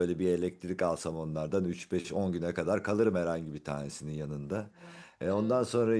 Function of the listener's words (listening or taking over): listening